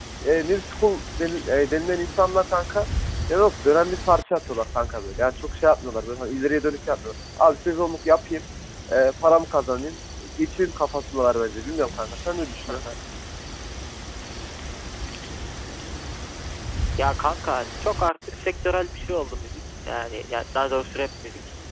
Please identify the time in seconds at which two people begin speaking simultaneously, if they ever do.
none

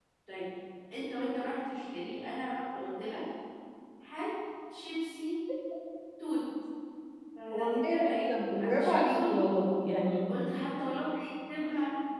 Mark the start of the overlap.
7.5 s

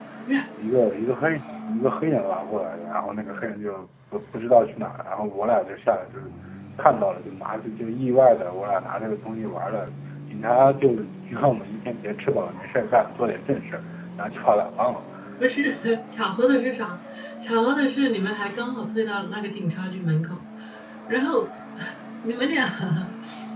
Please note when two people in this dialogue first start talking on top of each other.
none

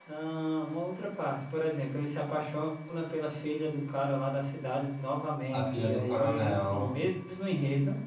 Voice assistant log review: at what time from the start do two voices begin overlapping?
5.5 s

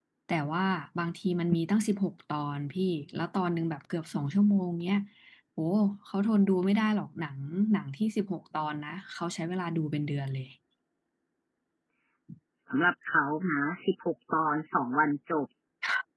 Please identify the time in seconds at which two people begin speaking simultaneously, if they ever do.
none

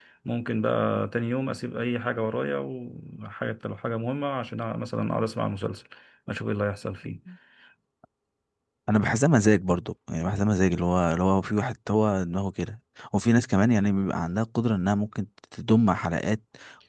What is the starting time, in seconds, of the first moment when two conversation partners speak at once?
none

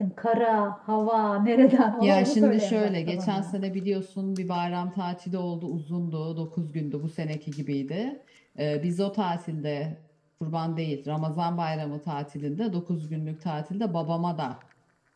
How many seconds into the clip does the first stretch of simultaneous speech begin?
2.0 s

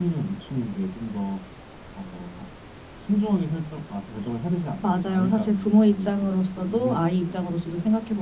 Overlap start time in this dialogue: 4.8 s

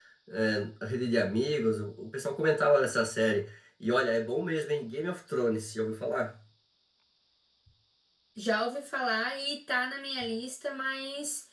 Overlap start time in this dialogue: none

